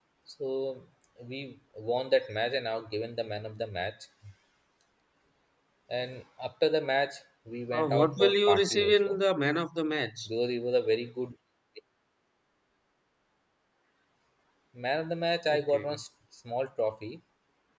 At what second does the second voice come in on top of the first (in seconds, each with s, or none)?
7.8 s